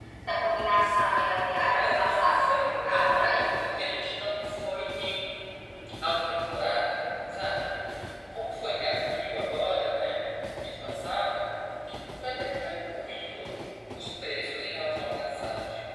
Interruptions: present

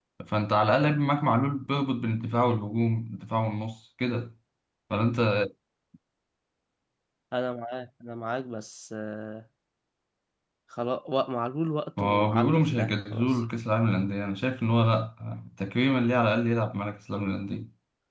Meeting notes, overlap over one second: present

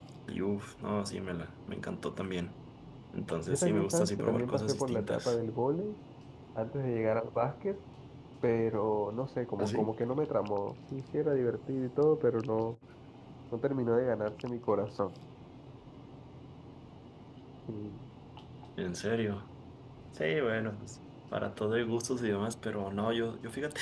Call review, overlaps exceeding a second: present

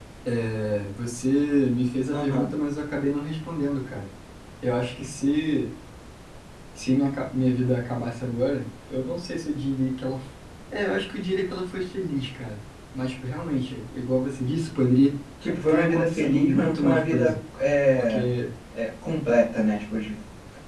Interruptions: present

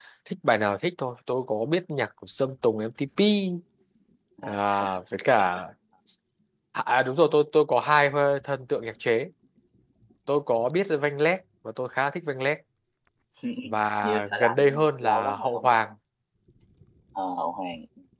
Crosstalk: present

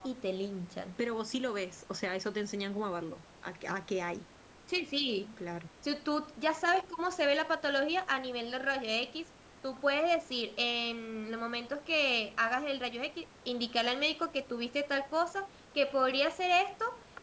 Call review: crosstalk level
none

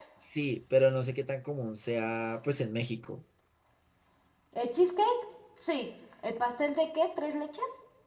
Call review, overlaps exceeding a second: none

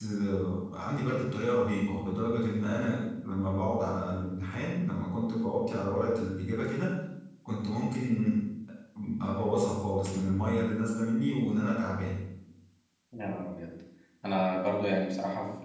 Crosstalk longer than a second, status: none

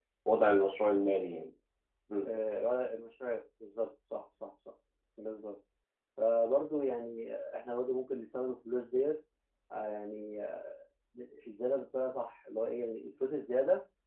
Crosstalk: none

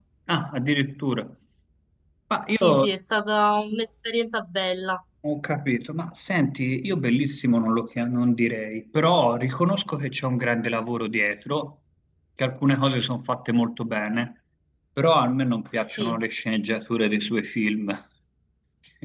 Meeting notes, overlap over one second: none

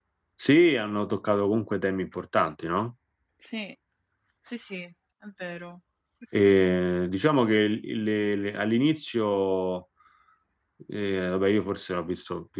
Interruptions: none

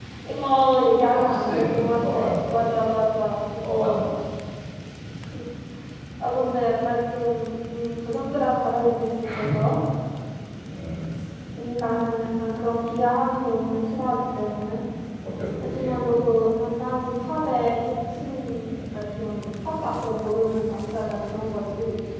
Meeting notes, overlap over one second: present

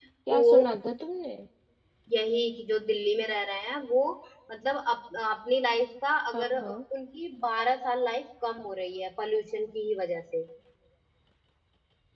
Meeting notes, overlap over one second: none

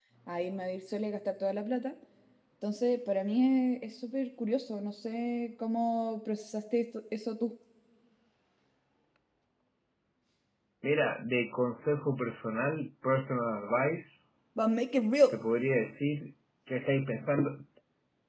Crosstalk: none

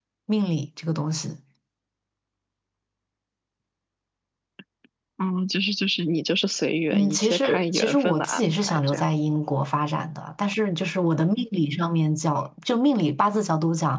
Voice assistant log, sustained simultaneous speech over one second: present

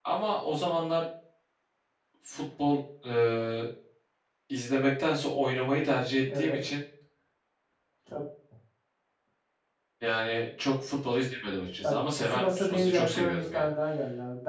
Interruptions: present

